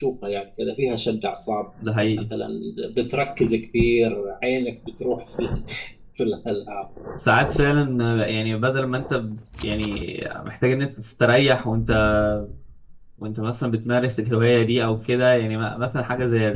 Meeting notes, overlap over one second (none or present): none